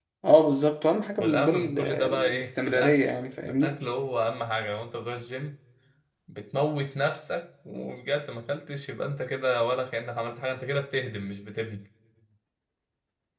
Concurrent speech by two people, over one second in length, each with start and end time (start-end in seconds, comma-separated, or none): 1.2-3.0